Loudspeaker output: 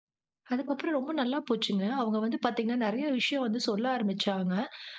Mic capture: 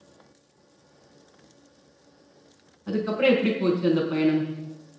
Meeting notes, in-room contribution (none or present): present